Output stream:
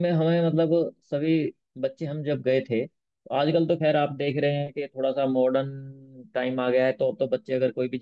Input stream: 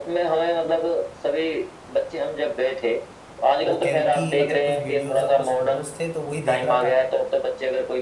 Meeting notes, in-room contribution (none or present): present